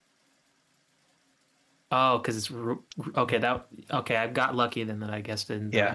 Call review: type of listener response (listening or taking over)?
taking over